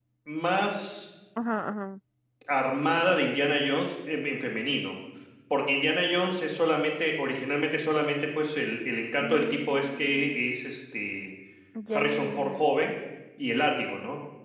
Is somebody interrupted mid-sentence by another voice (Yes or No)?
Yes